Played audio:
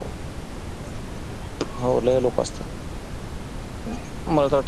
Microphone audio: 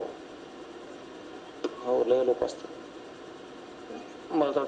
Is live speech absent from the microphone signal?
Yes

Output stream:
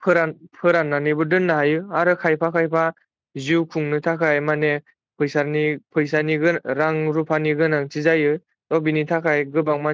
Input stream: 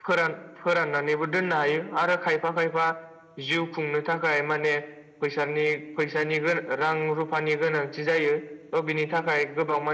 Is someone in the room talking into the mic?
No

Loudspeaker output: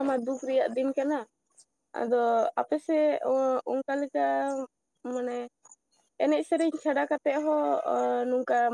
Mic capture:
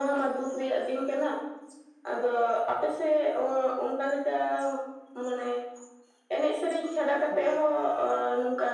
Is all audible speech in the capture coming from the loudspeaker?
No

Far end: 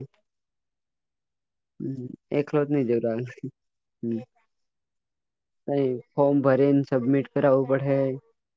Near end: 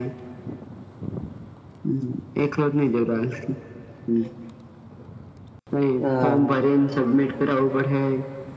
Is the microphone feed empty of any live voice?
No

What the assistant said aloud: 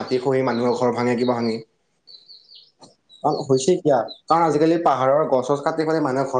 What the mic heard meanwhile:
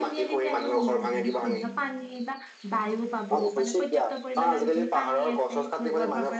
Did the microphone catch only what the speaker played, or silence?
No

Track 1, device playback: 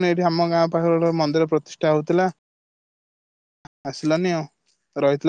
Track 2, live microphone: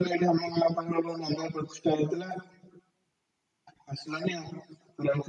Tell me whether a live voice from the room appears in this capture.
No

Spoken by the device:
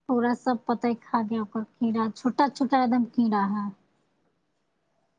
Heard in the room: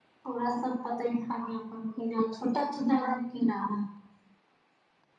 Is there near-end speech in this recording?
No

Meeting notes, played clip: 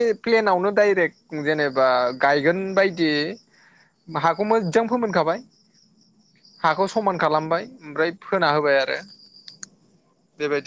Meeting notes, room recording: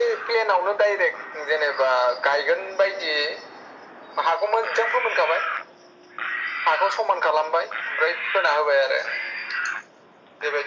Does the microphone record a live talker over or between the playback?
No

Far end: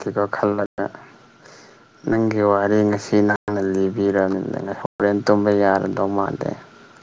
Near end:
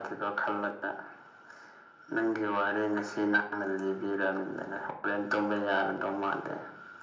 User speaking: No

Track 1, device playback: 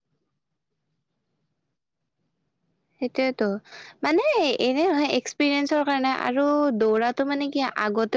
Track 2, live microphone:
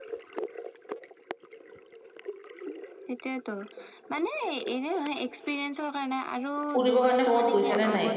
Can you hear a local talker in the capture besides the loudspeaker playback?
Yes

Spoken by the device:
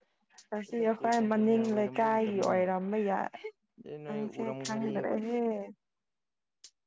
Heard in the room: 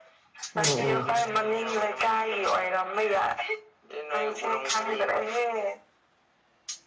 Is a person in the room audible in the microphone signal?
Yes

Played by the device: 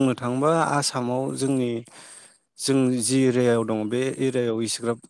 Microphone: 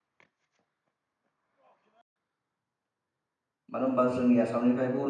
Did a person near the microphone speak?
Yes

